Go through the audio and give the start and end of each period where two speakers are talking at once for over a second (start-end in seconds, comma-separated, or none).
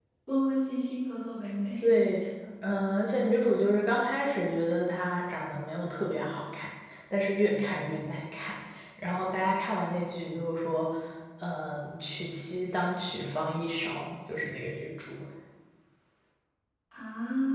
none